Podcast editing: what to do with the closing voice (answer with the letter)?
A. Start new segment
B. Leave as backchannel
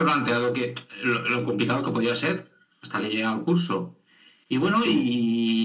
B